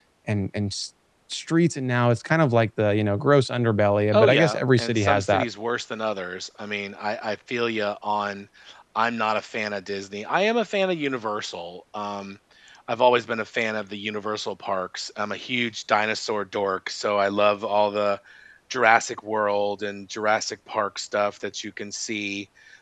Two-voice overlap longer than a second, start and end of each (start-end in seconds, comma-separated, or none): 4.1-5.5